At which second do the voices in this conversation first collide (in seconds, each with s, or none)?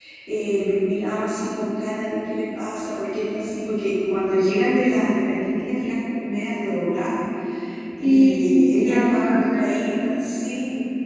8.0 s